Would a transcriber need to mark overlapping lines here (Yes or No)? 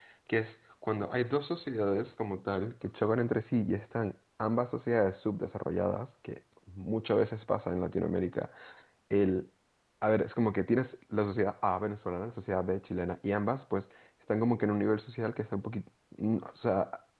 No